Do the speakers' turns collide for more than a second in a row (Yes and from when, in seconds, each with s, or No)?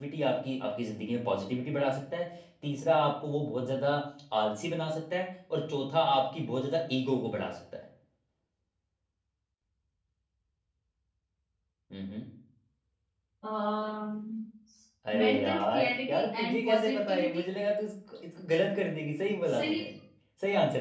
Yes, from 15.2 s